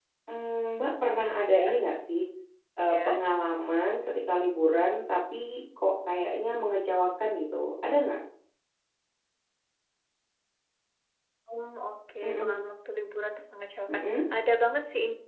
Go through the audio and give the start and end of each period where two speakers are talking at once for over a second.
none

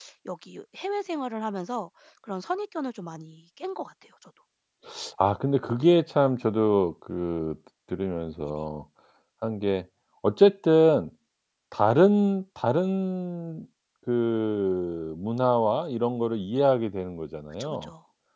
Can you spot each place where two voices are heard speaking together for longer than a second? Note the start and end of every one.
none

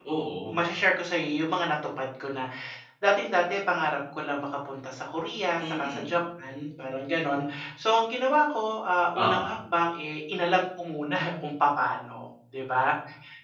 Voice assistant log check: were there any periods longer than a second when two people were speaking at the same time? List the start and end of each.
none

